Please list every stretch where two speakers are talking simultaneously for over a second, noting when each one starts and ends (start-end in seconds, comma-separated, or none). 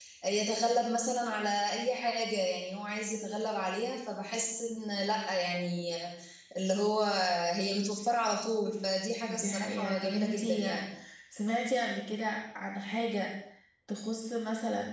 9.3-10.8